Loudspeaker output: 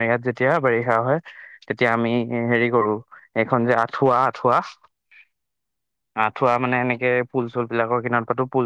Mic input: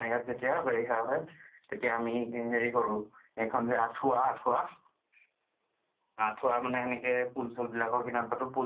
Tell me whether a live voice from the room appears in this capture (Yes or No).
No